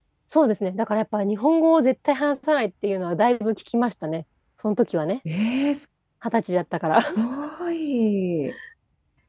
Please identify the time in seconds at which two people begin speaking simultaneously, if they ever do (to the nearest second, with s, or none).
none